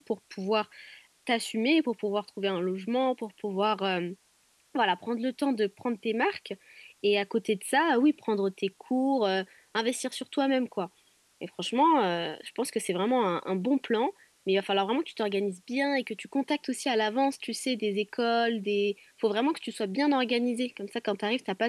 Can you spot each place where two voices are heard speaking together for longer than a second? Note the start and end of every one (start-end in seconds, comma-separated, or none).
none